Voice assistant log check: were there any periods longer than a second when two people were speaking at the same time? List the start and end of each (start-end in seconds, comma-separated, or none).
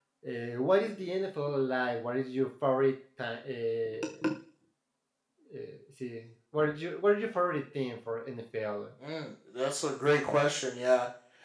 none